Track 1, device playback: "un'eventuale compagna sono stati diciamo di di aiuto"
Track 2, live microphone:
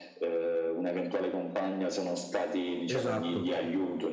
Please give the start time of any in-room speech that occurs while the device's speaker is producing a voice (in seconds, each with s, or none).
2.9 s